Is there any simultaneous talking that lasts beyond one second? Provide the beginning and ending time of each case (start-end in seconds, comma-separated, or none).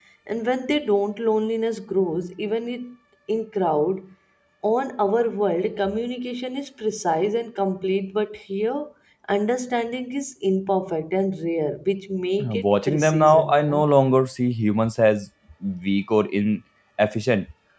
12.4-13.9